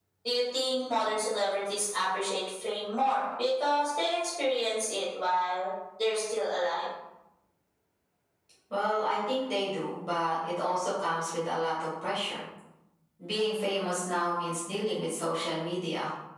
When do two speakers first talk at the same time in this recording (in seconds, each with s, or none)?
none